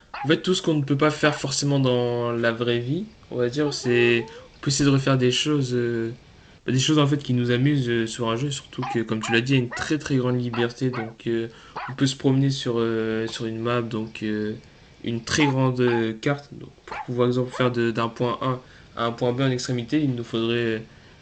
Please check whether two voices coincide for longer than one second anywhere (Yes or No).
No